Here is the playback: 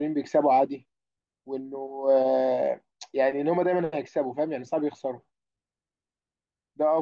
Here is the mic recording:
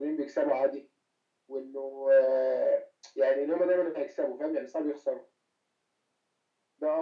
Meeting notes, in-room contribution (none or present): none